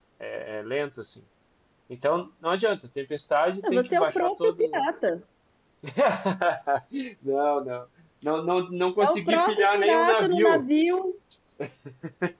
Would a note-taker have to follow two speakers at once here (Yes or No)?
Yes